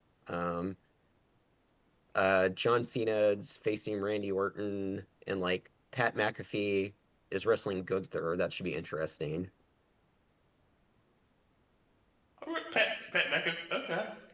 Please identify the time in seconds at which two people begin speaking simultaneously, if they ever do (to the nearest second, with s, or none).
none